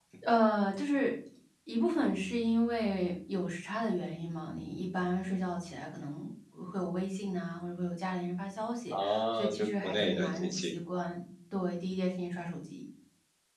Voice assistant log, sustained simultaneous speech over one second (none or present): present